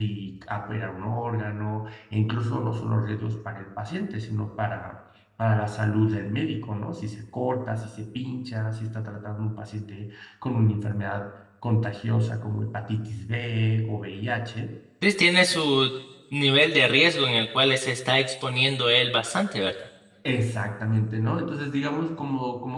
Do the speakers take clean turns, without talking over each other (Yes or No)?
Yes